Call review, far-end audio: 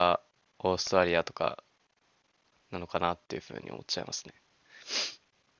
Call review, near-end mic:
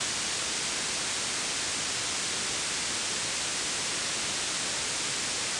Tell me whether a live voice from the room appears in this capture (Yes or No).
No